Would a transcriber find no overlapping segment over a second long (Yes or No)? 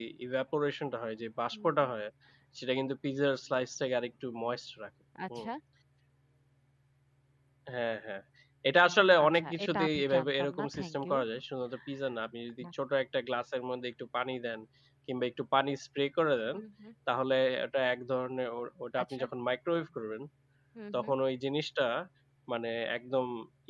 No